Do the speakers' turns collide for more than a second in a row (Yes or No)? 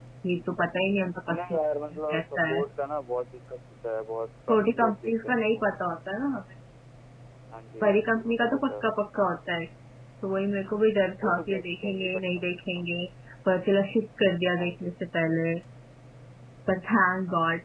Yes